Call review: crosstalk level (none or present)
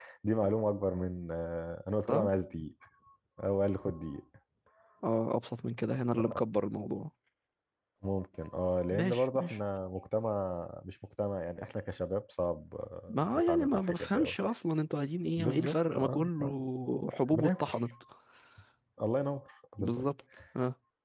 present